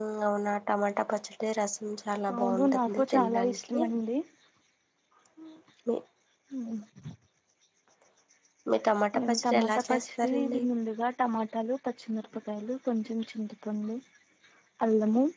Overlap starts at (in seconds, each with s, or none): 2.4 s